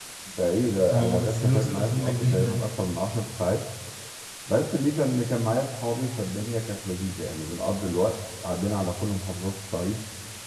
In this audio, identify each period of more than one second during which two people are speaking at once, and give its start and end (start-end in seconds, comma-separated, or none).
0.9-2.6